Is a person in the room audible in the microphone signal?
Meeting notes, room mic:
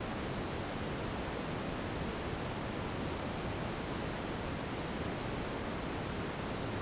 No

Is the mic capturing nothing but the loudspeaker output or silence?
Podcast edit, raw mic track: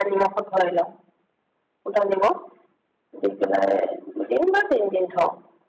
Yes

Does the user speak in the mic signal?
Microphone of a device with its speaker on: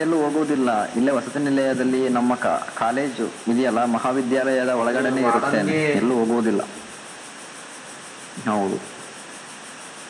Yes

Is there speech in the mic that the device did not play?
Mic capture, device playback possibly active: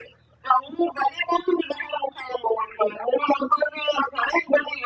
No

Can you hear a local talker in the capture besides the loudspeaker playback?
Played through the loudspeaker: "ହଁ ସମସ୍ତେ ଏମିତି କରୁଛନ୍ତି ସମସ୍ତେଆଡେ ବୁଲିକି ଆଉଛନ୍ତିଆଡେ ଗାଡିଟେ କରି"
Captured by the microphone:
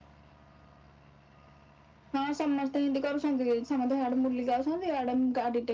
No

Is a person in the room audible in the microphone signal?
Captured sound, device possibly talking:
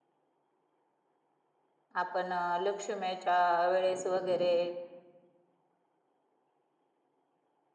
Yes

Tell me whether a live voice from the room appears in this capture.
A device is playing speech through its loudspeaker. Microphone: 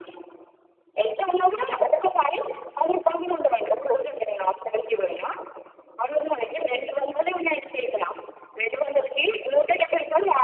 No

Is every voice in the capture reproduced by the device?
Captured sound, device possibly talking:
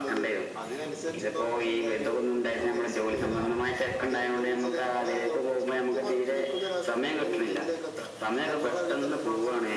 Yes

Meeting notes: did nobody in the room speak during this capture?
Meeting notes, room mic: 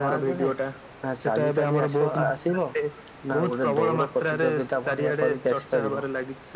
No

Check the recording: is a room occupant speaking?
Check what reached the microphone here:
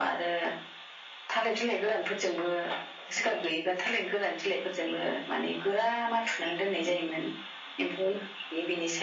No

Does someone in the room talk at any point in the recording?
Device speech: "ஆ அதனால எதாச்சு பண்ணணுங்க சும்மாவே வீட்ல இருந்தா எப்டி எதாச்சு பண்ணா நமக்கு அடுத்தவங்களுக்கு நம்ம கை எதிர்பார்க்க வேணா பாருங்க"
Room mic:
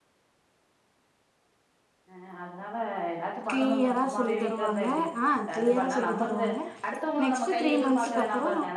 Yes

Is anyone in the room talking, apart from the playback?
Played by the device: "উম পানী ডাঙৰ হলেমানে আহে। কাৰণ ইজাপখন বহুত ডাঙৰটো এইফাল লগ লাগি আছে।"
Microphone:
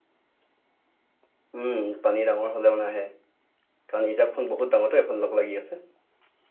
No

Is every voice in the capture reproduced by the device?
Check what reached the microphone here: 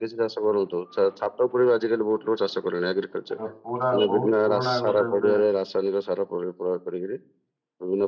No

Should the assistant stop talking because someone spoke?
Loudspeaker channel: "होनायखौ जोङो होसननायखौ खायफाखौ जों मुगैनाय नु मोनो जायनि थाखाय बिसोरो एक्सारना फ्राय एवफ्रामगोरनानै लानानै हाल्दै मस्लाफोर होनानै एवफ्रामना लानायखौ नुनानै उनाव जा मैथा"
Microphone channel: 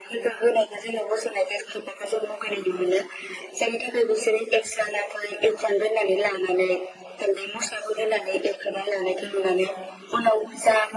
No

